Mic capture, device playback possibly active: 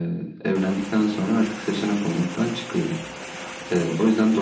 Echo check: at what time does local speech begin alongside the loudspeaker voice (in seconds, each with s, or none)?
none